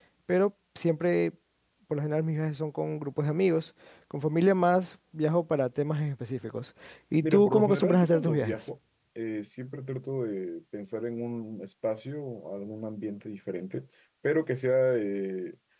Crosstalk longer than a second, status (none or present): present